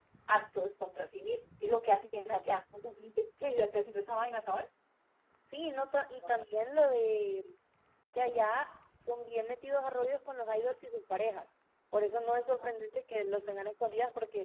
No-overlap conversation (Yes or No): Yes